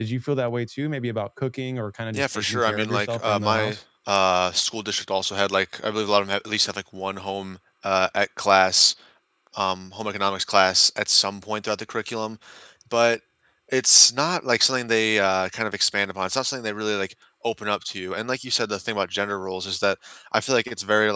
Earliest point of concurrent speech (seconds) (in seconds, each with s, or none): 2.1 s